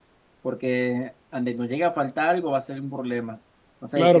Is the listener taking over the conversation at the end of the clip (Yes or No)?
Yes